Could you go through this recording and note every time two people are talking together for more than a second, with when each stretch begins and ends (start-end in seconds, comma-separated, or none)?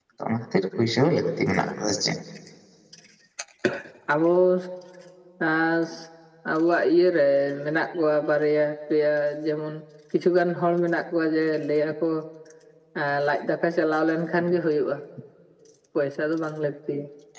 none